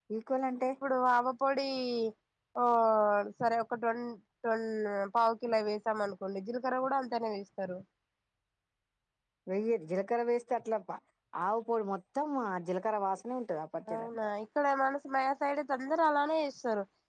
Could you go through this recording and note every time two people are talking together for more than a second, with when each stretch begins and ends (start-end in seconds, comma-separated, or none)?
none